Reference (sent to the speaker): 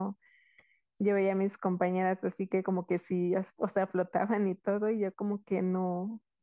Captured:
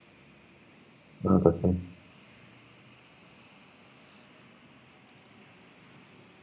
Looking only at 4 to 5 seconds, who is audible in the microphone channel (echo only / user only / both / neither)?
neither